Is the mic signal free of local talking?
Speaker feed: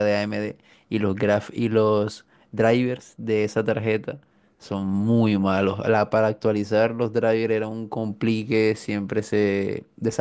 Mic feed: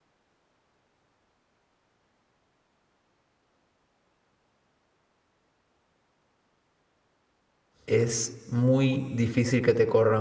No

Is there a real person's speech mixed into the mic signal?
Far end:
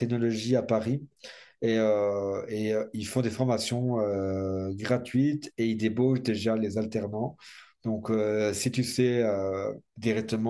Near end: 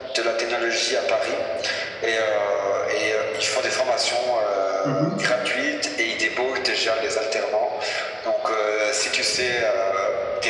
Yes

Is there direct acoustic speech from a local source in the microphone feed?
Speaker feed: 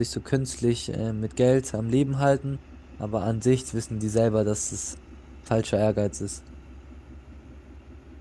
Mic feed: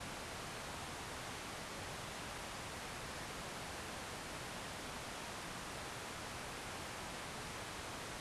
No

